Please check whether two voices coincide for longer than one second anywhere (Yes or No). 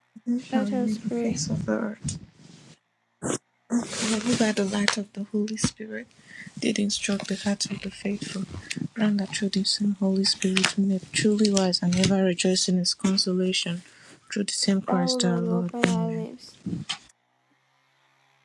Yes